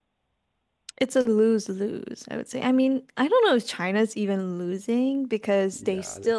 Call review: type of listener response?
listening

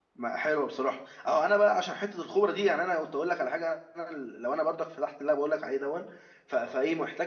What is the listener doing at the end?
listening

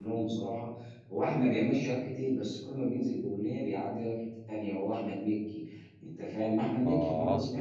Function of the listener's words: listening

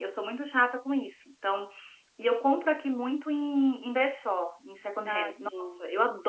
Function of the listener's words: listening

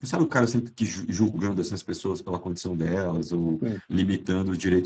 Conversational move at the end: listening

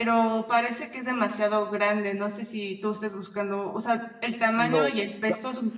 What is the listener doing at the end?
taking over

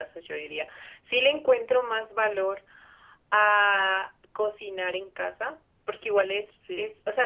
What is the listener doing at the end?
listening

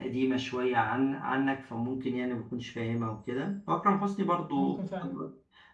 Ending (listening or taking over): listening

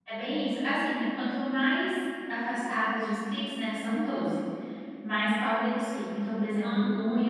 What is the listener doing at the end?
listening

